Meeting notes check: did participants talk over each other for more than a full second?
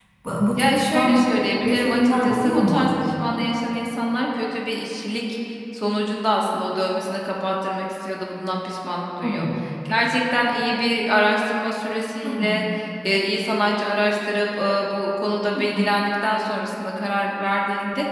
Yes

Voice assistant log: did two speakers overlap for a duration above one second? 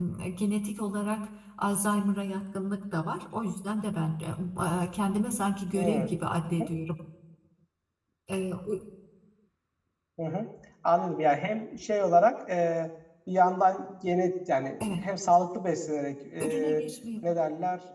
No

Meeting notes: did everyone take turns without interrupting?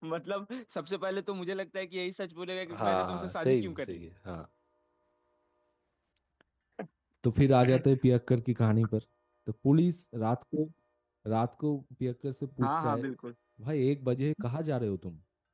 No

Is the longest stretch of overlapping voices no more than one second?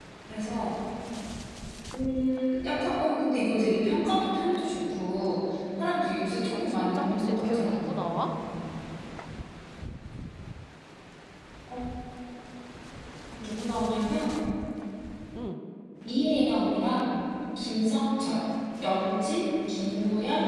No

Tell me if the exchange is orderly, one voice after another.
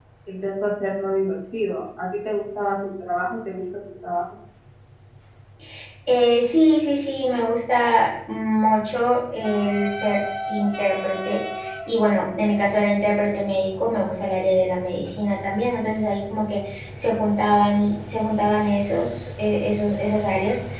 Yes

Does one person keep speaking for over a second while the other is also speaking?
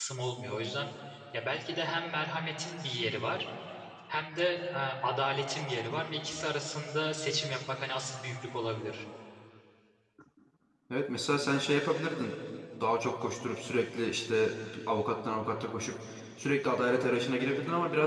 No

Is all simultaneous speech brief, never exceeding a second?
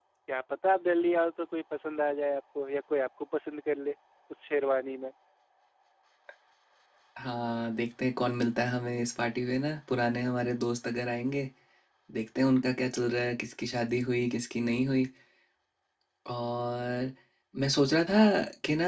Yes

